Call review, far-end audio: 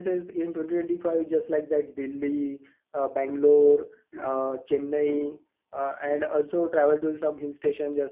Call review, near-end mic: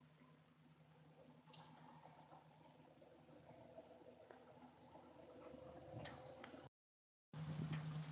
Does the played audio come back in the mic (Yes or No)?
No